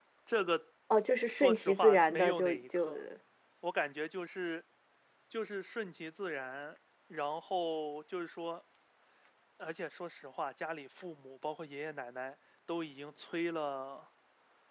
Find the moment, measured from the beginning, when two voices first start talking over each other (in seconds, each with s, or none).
1.3 s